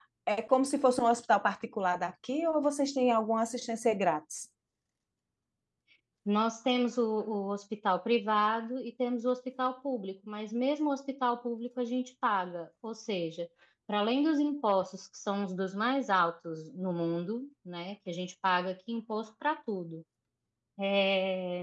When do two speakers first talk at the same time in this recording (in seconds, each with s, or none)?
none